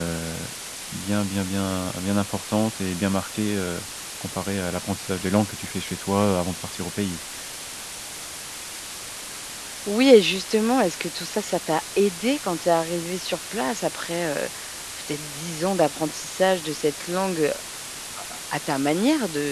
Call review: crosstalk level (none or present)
none